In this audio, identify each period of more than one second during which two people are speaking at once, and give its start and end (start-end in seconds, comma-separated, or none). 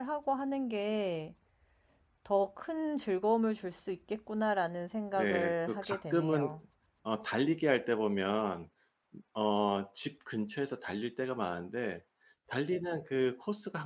5.2-6.6